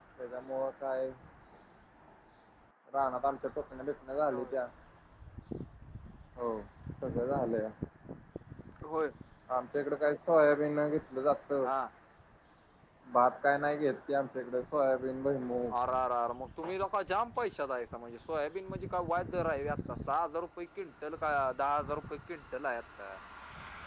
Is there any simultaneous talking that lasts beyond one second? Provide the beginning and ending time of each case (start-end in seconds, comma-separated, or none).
none